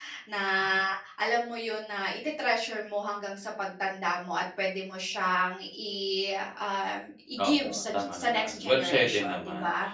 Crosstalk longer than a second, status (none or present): present